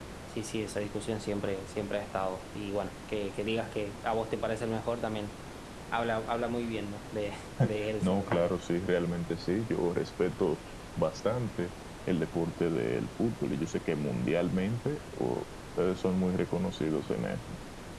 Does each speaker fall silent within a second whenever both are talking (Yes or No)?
Yes